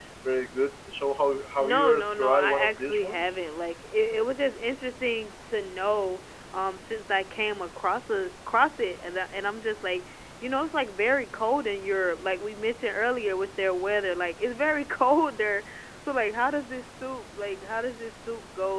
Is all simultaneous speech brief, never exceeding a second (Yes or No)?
No